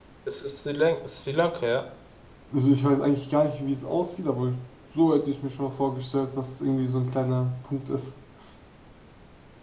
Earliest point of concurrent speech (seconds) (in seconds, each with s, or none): none